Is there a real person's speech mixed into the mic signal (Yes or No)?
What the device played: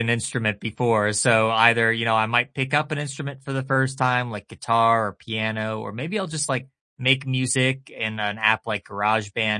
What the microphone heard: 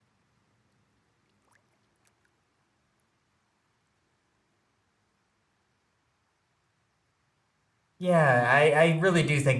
Yes